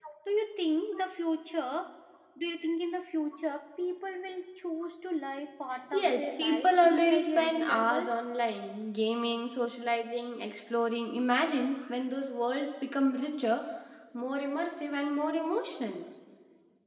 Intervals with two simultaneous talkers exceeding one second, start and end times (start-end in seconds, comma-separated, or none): 5.9-8.1